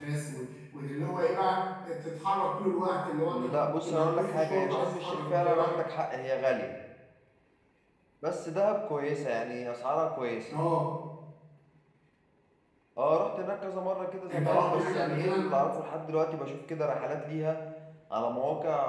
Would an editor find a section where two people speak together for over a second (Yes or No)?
Yes